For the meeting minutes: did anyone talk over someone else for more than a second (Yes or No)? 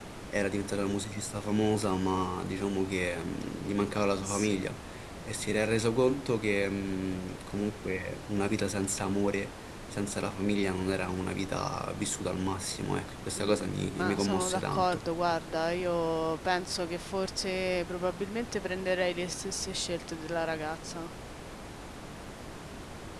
Yes